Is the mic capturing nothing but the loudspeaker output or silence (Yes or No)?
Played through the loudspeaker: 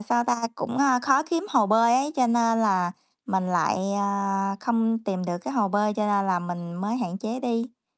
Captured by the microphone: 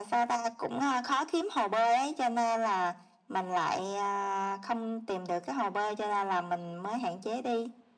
Yes